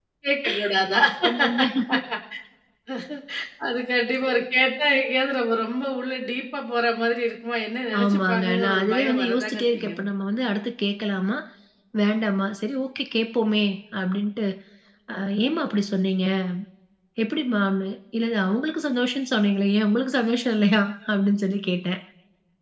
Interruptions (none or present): present